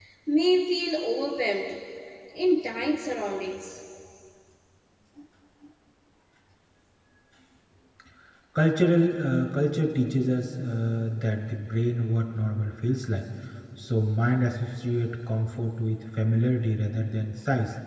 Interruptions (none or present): none